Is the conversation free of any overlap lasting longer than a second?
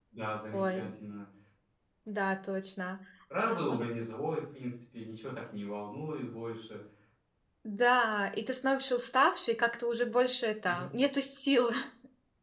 Yes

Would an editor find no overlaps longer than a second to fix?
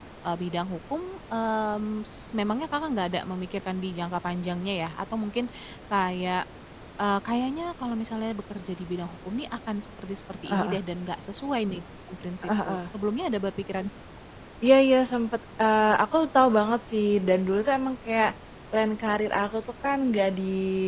Yes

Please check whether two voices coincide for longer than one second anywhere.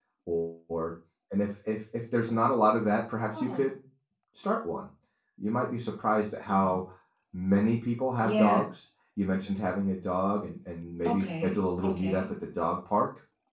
Yes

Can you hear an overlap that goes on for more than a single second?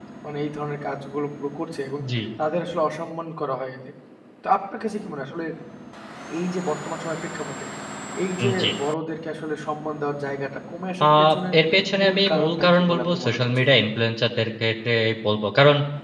Yes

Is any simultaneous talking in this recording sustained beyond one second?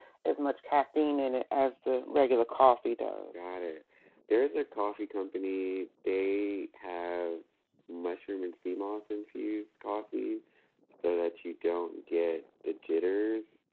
No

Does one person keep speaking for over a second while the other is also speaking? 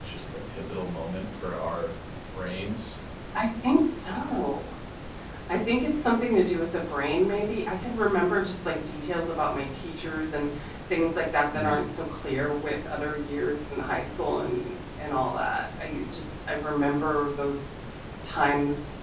No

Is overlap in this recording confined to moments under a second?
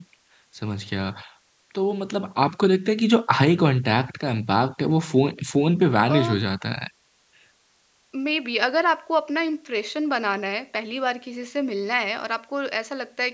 Yes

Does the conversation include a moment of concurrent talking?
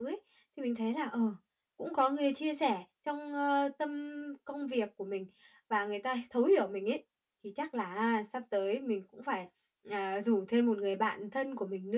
No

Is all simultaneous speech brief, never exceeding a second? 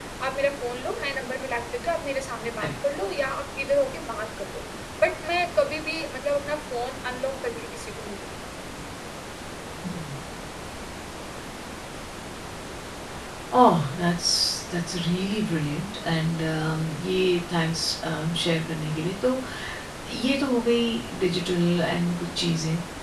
Yes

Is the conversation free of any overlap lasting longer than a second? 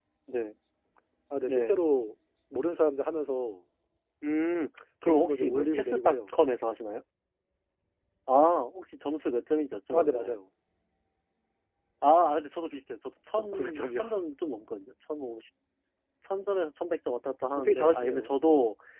No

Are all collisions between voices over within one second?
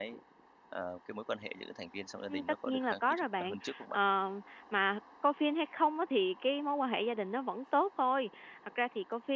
No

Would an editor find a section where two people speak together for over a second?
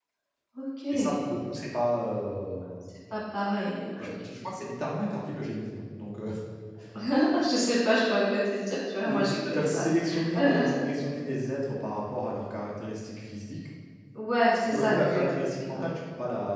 Yes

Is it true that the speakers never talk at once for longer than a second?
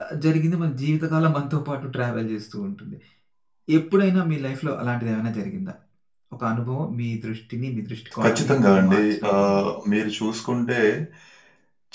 No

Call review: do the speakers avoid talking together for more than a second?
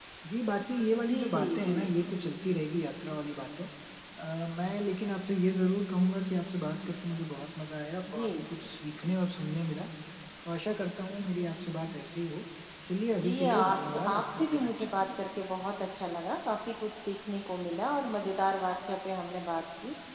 No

